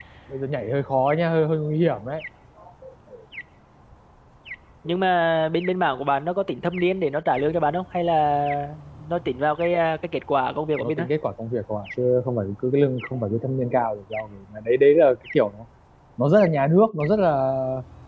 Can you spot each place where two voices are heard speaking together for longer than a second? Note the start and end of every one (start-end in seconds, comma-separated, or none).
none